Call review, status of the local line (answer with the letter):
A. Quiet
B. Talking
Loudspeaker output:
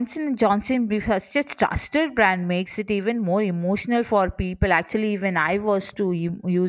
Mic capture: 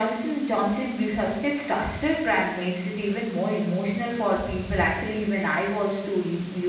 A